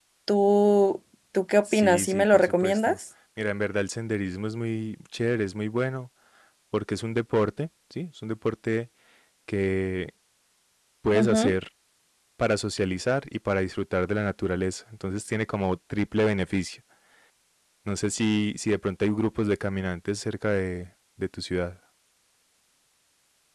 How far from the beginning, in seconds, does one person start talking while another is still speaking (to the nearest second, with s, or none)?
2 s